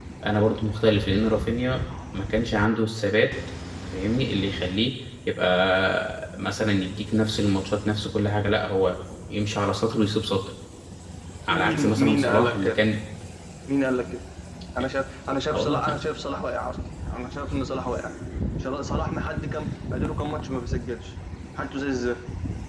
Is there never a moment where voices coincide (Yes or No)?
No